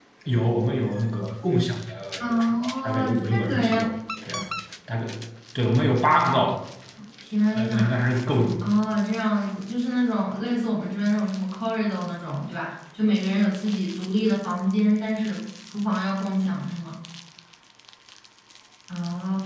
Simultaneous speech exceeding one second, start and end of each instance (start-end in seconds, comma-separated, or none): 2.2-3.8